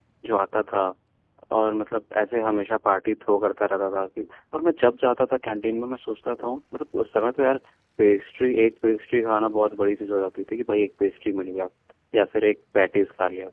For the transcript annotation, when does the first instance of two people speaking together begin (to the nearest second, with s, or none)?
none